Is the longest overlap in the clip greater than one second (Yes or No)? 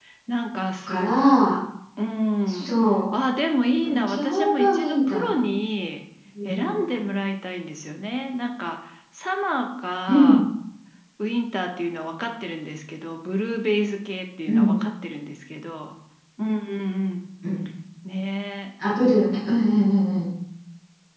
Yes